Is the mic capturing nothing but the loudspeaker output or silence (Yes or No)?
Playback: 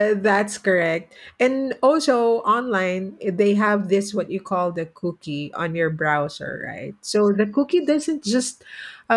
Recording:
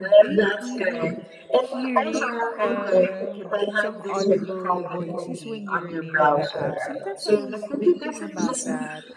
No